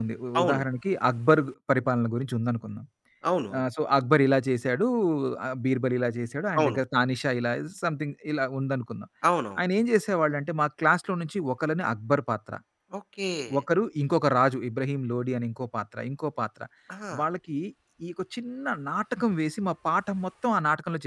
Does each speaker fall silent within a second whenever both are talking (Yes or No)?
Yes